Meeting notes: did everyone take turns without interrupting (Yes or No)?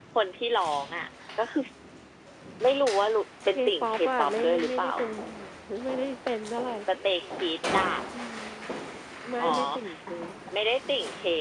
No